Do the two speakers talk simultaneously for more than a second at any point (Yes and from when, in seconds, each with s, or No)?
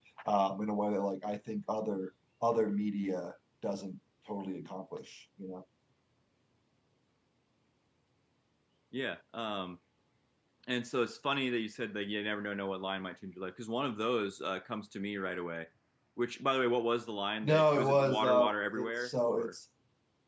Yes, from 17.4 s